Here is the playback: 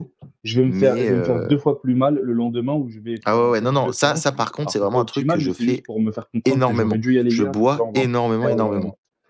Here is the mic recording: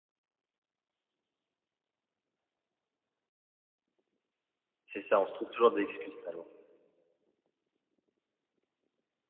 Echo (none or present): none